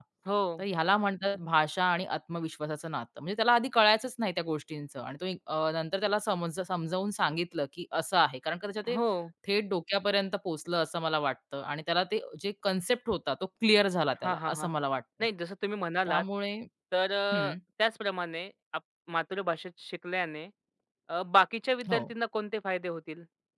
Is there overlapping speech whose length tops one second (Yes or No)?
No